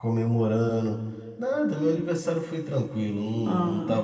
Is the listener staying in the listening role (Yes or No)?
Yes